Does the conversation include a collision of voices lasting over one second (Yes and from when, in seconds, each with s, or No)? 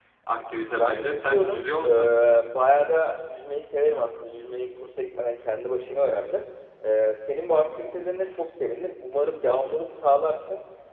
Yes, from 0.8 s